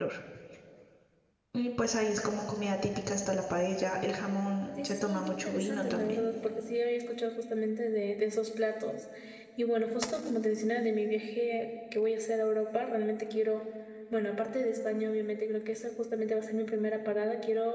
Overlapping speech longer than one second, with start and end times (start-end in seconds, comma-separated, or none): 4.8-6.3